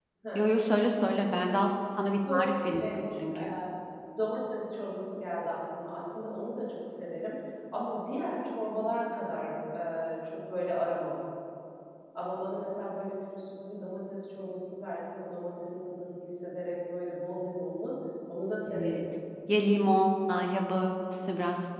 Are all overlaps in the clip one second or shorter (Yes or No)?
Yes